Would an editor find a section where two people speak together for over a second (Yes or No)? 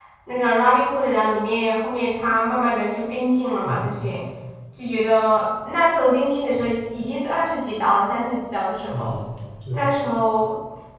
No